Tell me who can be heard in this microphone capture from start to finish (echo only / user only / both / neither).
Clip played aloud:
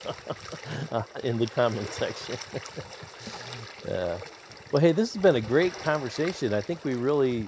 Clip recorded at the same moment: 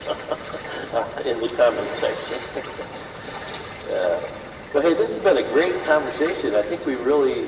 echo only